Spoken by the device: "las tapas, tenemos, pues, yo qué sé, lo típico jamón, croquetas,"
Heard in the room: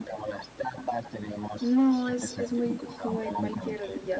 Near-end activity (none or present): present